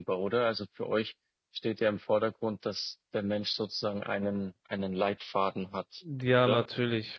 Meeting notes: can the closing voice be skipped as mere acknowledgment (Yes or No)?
No